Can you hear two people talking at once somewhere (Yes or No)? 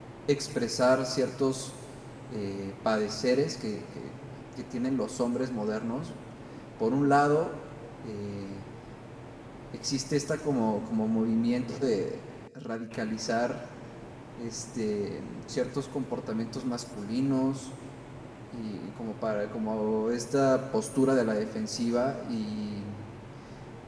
No